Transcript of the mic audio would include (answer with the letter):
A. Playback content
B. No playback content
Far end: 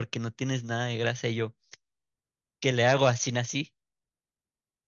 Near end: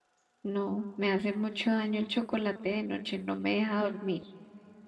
B